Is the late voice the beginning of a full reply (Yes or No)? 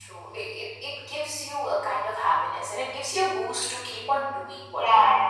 Yes